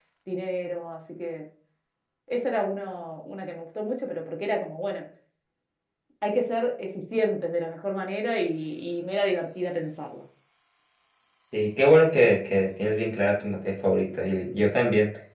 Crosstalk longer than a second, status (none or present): none